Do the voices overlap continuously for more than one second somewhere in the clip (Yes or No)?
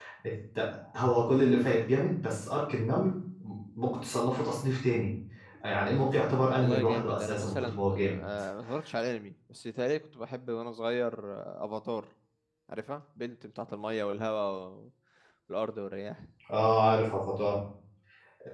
Yes